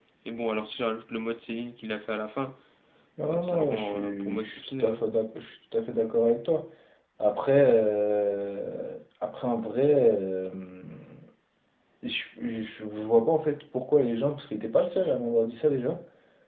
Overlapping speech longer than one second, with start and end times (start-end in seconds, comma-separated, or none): 3.3-5.0